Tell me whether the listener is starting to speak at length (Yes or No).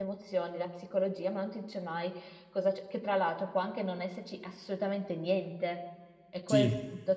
No